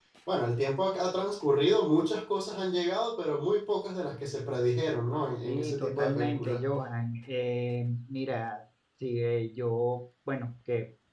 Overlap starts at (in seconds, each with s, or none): 5.4 s